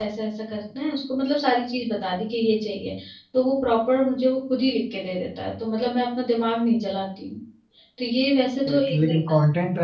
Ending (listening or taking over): taking over